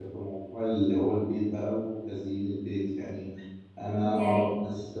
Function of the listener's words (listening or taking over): listening